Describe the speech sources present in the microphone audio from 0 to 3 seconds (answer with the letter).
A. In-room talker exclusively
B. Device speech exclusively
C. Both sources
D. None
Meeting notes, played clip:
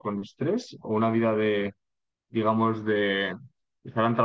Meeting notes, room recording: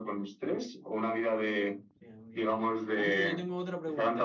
C